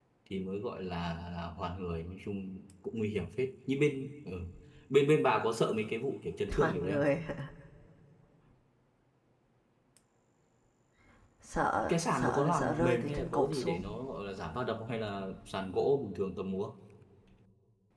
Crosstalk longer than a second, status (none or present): present